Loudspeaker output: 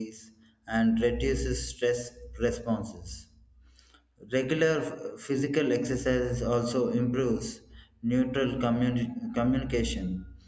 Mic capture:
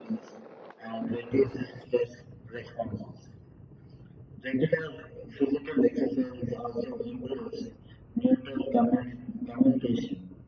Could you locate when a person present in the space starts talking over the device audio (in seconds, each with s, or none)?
none